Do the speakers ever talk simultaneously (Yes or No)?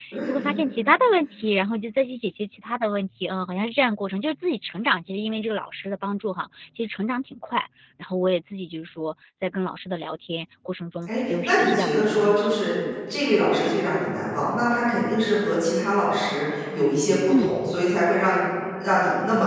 Yes